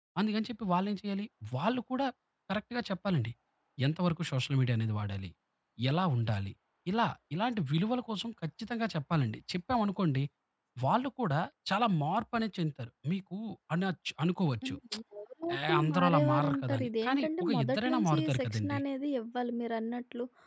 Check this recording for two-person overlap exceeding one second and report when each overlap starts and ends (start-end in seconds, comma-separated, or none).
15.5-18.8